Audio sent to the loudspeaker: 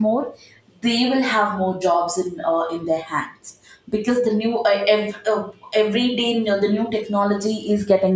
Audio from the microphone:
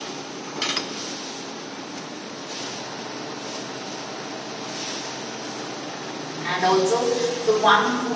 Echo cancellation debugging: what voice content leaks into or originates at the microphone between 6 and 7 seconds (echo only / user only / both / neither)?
user only